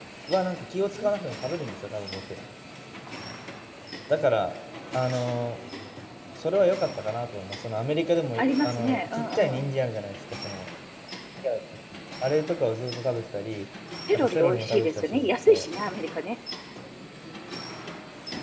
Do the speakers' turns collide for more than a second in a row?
Yes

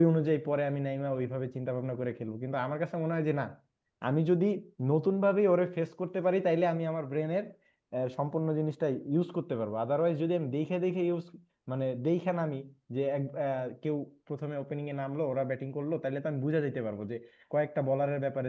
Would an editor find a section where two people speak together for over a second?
No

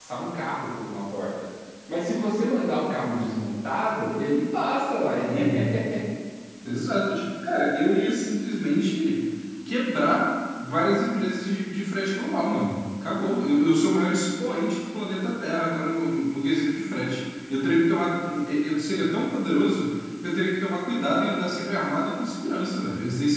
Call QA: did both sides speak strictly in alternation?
Yes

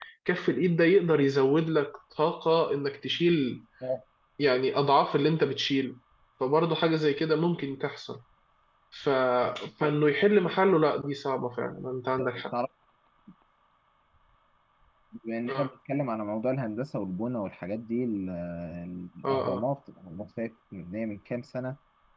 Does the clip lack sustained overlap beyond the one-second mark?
Yes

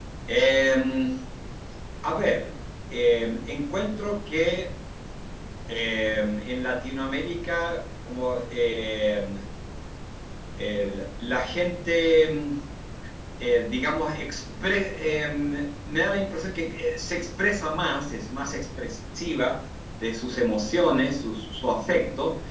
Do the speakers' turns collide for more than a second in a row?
No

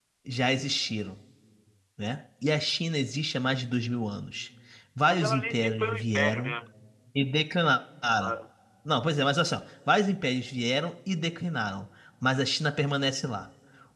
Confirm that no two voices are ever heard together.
No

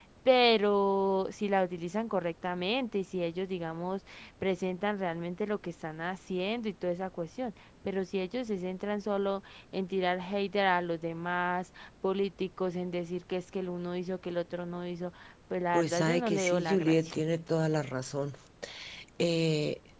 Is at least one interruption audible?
Yes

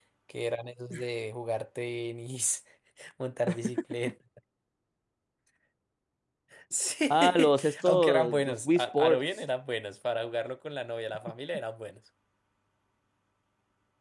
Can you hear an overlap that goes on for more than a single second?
Yes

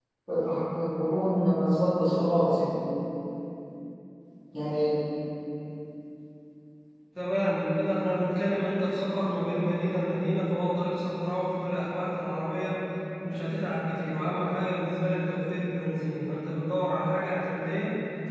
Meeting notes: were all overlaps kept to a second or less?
Yes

